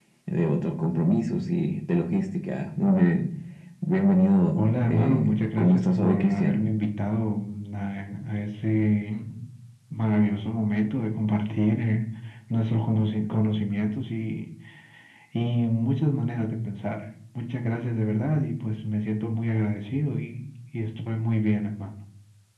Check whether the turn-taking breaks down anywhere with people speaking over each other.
Yes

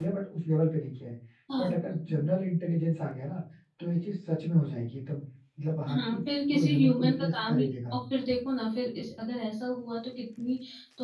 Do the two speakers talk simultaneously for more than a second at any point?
Yes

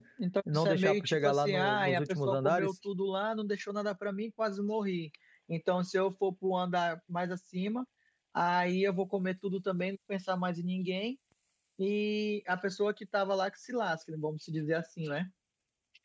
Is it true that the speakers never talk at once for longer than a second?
No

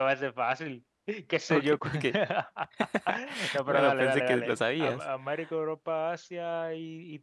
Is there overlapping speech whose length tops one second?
Yes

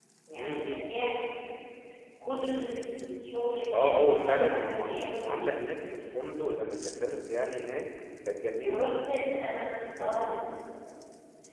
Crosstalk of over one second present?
Yes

